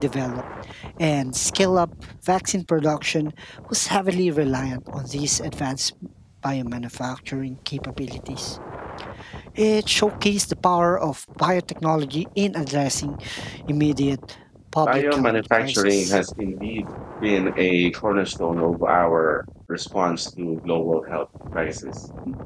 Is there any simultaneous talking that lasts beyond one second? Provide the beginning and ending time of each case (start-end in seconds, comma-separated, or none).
14.8-16.2